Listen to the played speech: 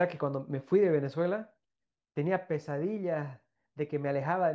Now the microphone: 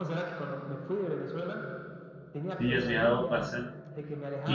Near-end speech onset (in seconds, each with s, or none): 2.6 s